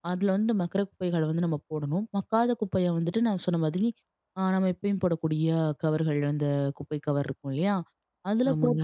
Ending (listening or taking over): listening